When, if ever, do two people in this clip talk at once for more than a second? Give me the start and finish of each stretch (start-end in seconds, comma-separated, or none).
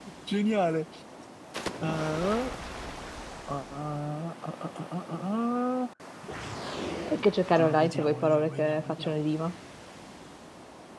7.5-9.2